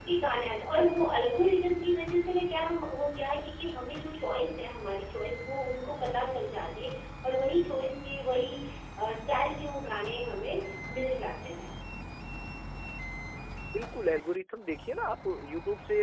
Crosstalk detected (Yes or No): No